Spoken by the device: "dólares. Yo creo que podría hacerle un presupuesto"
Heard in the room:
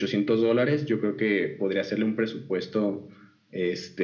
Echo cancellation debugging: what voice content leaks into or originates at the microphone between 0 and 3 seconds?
echo only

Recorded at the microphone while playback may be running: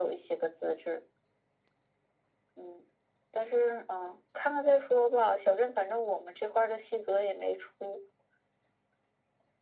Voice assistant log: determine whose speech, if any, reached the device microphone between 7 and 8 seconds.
echo only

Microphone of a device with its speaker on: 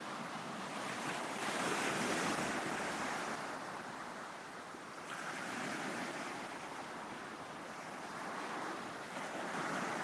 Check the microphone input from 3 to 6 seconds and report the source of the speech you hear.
neither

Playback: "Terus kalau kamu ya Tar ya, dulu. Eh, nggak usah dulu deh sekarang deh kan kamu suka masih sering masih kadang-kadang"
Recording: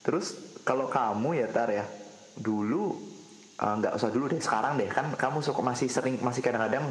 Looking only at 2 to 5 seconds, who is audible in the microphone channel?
echo only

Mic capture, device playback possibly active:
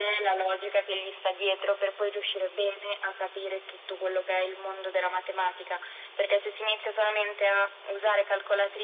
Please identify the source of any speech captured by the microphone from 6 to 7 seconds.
echo only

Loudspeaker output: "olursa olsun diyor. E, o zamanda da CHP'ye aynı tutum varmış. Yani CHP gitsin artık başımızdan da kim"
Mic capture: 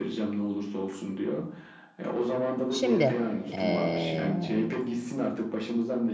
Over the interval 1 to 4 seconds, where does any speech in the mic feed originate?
both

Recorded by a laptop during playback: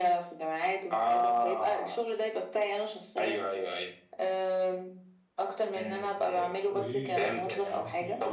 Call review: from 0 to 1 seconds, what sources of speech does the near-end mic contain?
echo only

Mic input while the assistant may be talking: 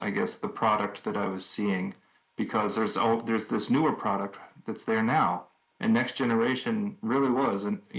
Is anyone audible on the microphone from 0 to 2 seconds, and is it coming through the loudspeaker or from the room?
echo only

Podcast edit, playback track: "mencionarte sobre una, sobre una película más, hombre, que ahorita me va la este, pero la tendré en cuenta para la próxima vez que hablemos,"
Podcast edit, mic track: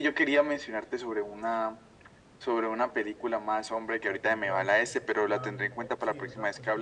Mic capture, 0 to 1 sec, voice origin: echo only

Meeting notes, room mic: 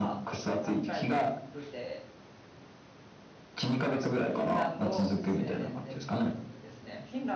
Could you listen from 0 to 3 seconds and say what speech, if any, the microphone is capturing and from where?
both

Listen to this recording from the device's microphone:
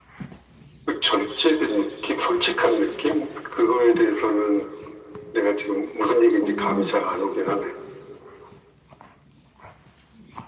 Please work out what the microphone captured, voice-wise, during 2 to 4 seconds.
echo only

